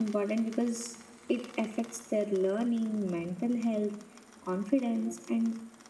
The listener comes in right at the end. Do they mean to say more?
No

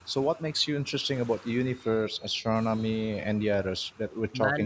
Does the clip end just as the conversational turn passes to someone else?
Yes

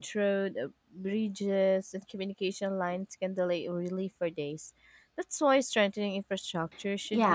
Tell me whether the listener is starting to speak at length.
Yes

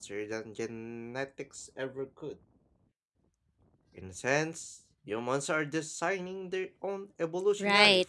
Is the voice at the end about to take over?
Yes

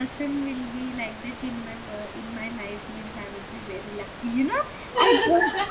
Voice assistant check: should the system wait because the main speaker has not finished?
Yes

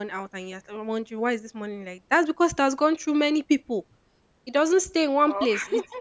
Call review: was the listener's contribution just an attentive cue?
Yes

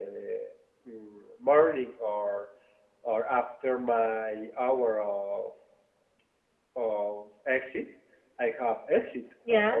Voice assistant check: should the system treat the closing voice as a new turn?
No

